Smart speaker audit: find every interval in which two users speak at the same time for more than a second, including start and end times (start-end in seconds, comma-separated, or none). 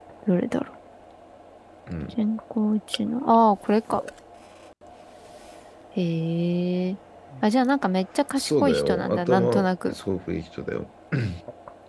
8.4-9.9